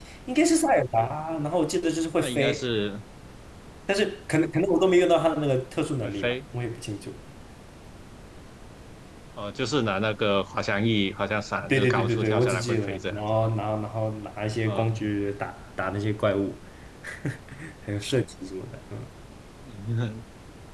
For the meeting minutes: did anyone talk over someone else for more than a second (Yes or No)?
Yes